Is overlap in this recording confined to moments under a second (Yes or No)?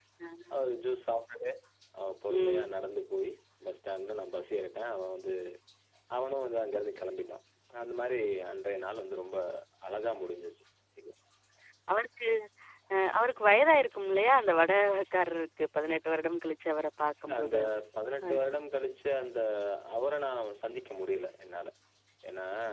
Yes